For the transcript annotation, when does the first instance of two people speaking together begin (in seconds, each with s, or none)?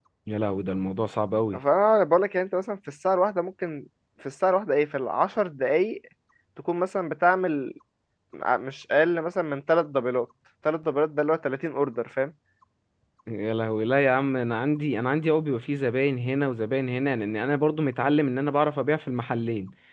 none